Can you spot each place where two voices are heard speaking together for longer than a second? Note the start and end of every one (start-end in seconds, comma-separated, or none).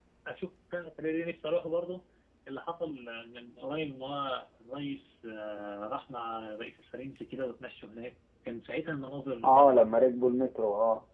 none